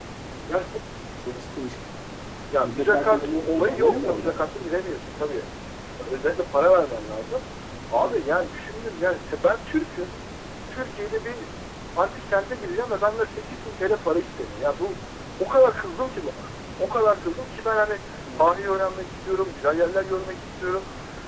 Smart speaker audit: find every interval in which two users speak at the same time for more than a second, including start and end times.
2.6-4.4

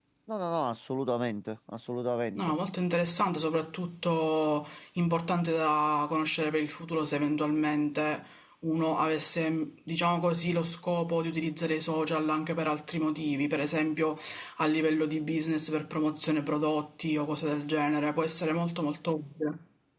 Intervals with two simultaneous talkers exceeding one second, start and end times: none

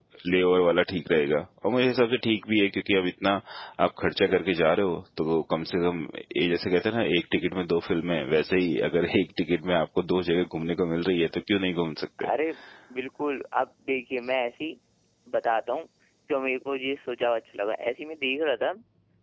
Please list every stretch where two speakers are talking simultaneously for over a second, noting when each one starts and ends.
none

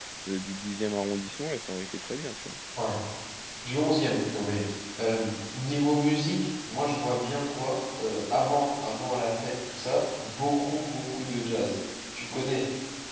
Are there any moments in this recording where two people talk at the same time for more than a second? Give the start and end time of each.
none

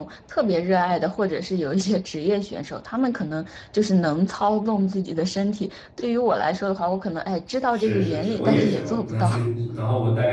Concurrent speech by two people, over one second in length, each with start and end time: 7.7-9.5

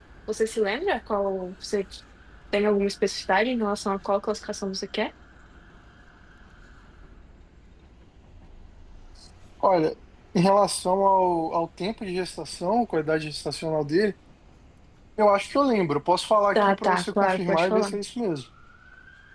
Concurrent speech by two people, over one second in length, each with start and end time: 16.6-17.9

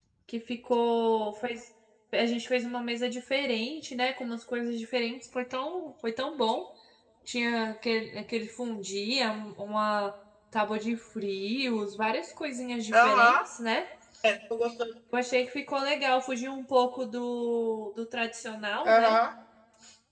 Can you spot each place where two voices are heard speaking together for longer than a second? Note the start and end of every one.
none

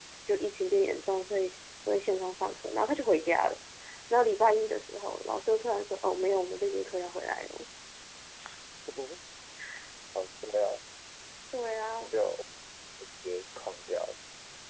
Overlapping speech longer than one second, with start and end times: none

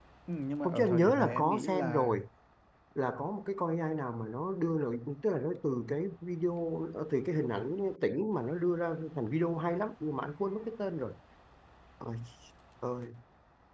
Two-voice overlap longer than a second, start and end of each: 0.6-2.1

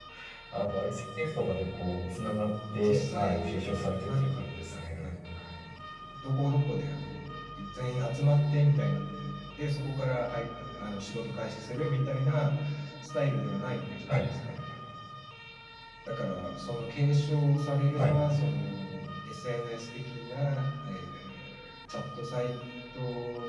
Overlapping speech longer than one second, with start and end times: 2.7-5.1

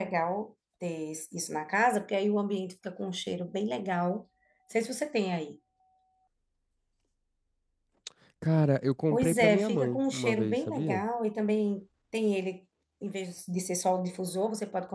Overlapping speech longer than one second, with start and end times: 9.1-11.0

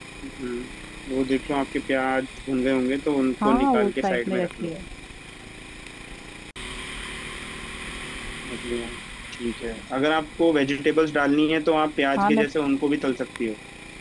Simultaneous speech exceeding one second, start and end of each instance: 3.4-4.7

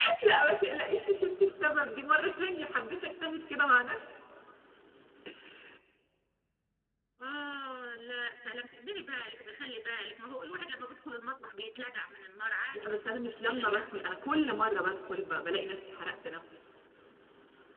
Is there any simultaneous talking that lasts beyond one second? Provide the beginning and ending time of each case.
12.7-14.0

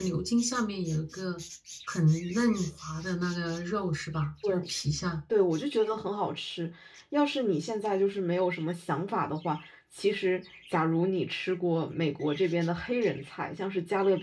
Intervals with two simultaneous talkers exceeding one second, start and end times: none

